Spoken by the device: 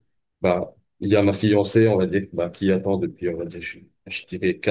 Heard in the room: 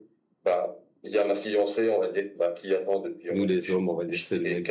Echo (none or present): present